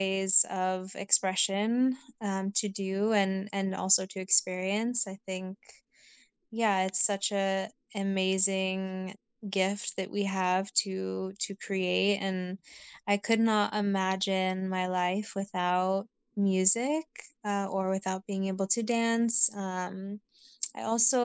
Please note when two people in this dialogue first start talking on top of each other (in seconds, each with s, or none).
none